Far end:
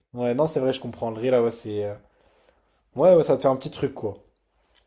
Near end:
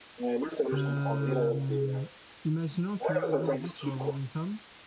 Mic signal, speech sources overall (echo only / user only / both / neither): both